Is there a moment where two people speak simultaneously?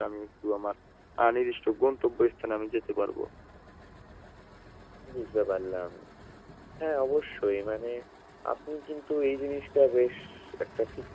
No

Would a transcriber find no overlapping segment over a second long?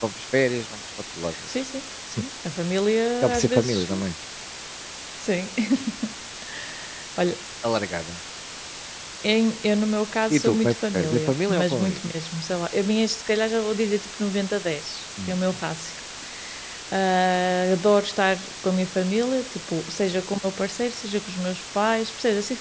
No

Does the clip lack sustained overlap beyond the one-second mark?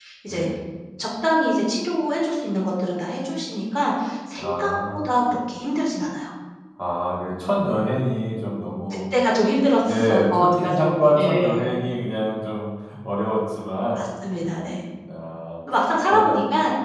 No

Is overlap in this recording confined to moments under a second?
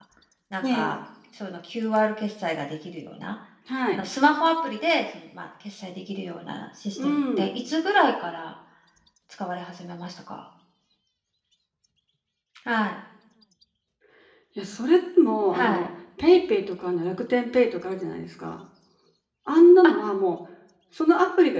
Yes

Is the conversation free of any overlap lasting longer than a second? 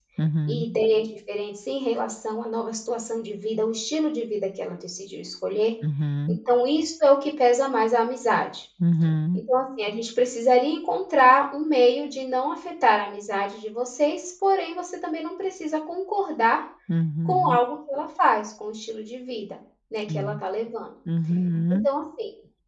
Yes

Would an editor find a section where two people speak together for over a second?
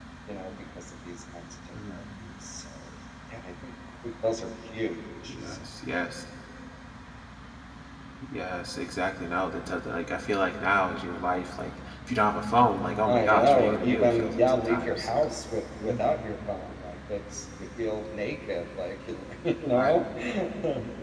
Yes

